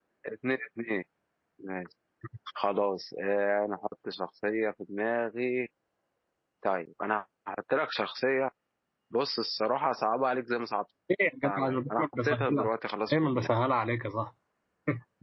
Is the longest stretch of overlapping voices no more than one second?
No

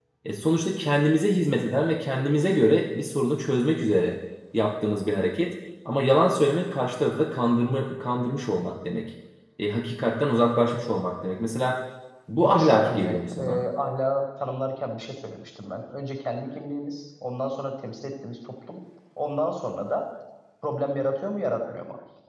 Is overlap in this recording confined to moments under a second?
No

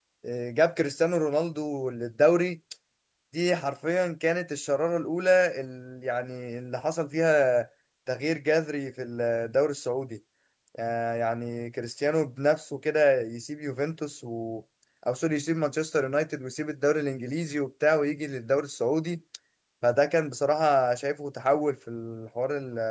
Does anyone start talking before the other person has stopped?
No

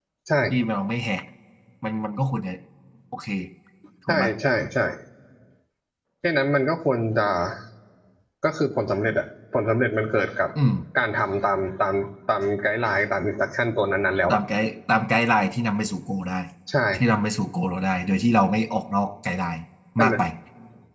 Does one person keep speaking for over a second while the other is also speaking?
No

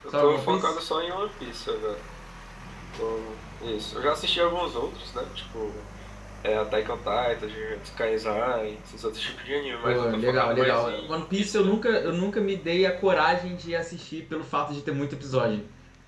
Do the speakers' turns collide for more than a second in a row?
Yes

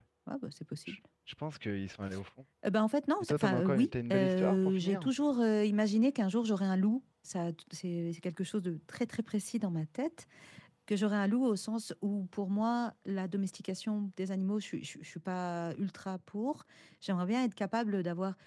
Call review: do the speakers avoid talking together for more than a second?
No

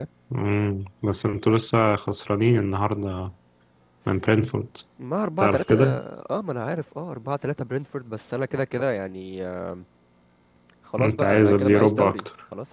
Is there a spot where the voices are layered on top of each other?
Yes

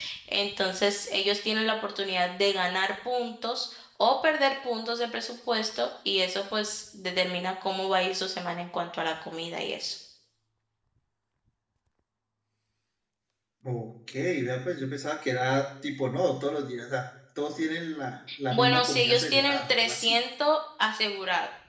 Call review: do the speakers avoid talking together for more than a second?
No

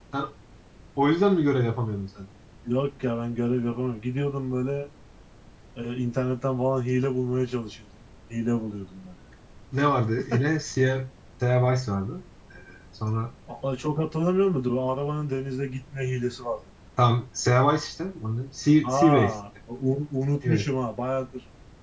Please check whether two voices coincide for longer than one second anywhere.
No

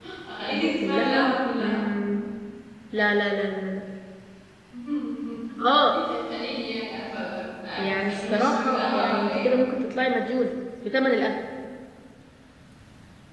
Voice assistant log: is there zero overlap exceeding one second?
No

